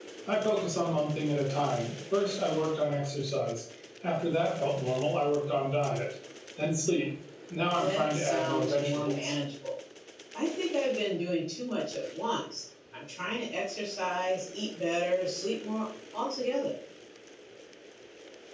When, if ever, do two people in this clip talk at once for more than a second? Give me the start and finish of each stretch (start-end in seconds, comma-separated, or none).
7.7-9.3